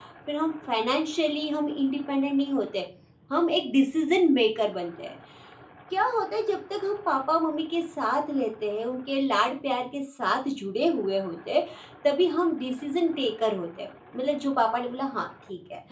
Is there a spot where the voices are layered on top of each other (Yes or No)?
No